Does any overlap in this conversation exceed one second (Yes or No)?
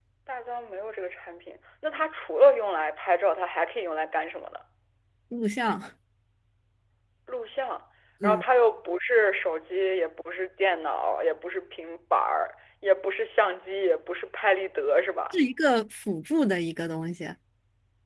No